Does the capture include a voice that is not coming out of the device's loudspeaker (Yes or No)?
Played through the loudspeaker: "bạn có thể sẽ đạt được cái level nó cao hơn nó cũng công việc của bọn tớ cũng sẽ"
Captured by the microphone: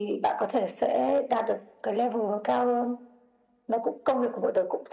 No